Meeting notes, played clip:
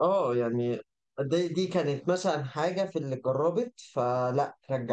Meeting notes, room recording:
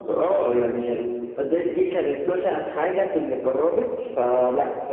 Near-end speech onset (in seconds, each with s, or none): none